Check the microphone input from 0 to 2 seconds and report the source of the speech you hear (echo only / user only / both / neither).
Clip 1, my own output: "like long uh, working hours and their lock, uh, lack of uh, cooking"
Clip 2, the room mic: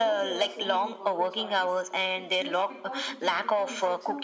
both